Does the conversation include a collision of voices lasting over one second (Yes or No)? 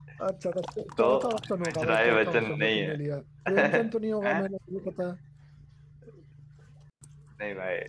Yes